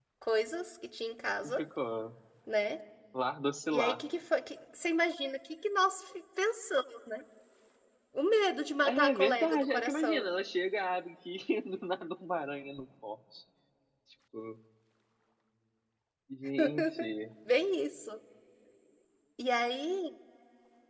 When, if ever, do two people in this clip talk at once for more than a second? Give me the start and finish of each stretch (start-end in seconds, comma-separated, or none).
8.8-10.3